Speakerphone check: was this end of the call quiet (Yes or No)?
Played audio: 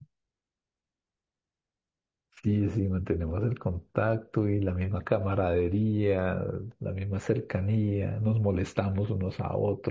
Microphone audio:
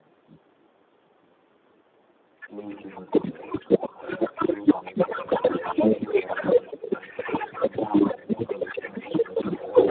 Yes